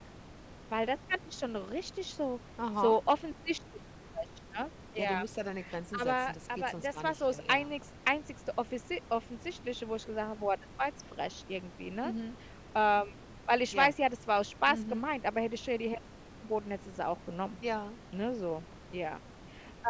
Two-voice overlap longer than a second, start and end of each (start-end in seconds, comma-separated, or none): 6.0-7.7